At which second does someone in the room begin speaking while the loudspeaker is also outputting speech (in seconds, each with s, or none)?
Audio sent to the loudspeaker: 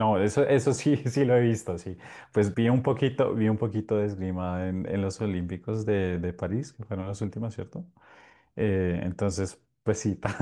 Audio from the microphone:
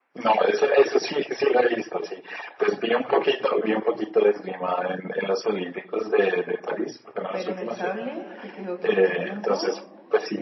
7.3 s